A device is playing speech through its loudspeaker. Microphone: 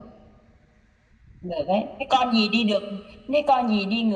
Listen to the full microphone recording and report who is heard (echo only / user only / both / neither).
echo only